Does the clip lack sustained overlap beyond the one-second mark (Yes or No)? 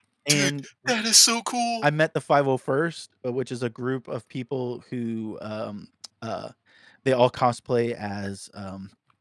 Yes